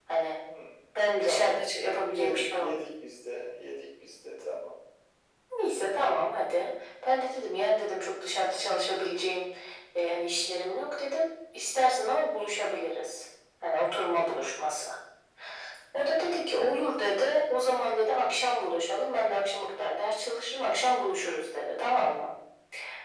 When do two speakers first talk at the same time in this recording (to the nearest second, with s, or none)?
1 s